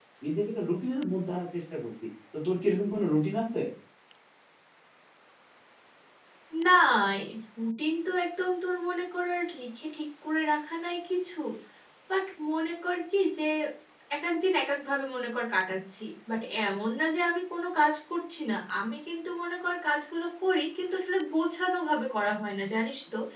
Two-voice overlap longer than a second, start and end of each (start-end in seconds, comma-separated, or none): none